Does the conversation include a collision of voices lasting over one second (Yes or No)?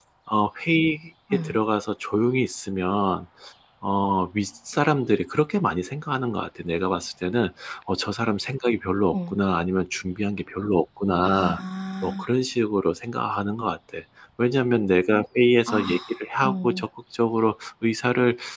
No